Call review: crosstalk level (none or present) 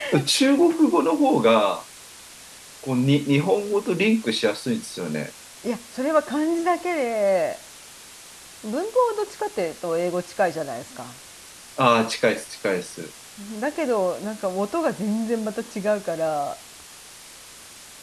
none